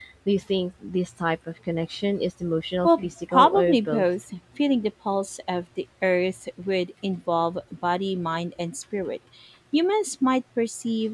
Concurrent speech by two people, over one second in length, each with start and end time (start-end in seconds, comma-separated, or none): 2.8-4.0